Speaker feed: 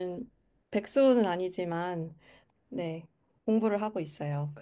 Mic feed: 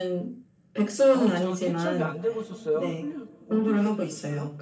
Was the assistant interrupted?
Yes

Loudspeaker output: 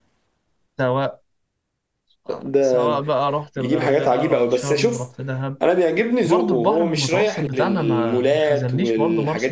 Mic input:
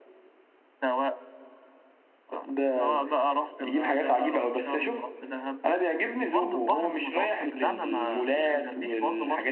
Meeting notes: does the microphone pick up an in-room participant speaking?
No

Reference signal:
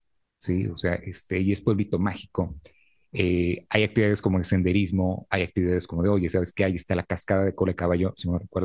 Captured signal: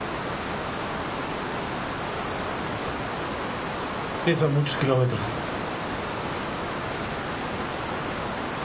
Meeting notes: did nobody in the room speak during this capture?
No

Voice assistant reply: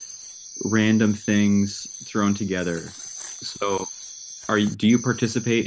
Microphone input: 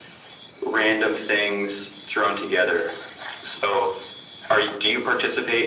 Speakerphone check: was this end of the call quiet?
Yes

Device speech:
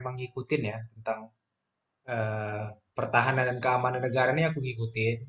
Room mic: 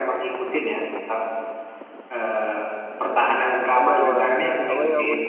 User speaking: Yes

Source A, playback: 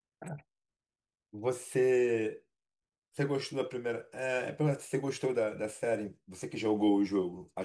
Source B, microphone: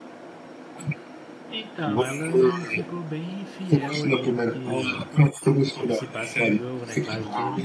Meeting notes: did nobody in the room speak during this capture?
No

